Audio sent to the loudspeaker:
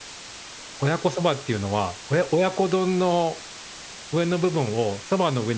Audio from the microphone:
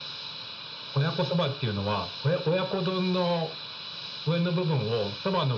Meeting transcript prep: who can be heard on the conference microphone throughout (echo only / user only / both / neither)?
echo only